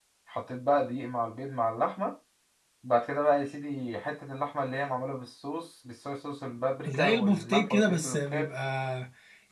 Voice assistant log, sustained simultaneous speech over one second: present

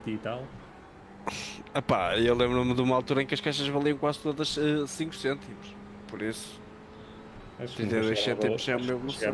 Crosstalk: present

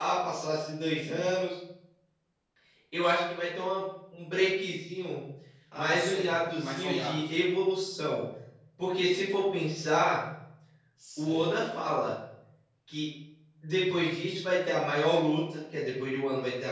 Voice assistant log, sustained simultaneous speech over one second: present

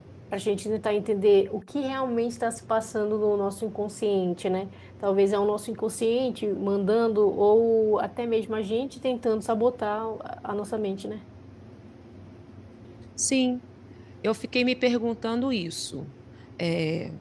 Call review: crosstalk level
none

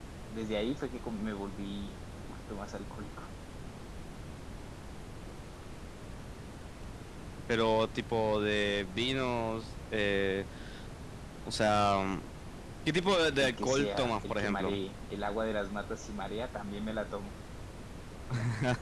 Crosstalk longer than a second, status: present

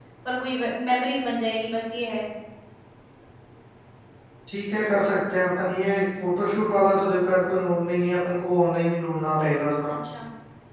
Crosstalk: none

